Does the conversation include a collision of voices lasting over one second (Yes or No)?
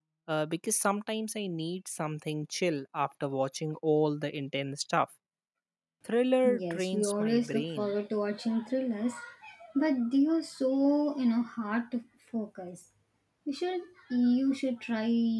Yes